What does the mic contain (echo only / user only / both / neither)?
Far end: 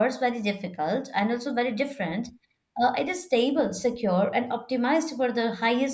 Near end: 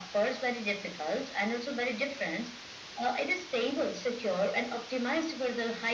echo only